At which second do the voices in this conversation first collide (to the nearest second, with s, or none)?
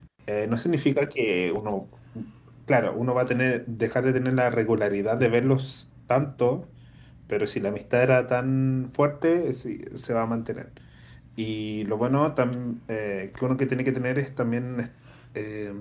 none